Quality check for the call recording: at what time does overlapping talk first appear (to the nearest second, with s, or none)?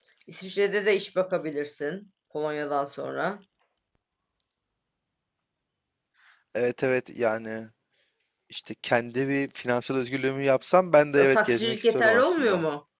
11 s